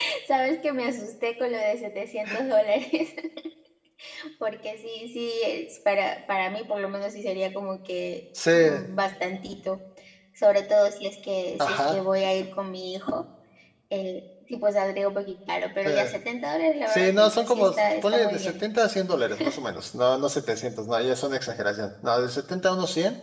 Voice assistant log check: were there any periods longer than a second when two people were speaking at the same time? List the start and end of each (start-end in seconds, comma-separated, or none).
16.9-18.6